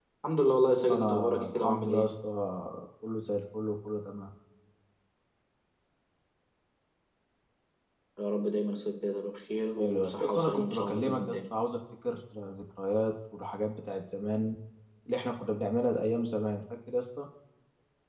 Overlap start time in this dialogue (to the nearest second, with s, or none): 1 s